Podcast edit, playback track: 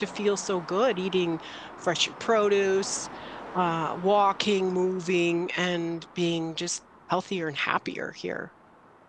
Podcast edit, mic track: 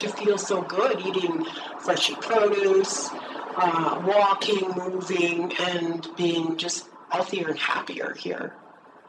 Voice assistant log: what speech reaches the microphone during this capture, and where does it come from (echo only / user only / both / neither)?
echo only